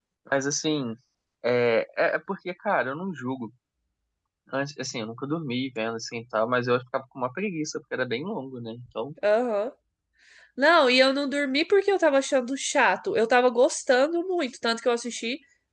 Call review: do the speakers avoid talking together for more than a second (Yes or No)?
Yes